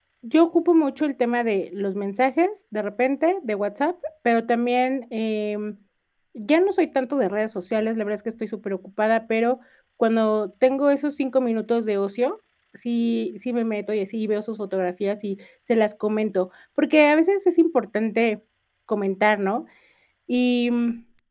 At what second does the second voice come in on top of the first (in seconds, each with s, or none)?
none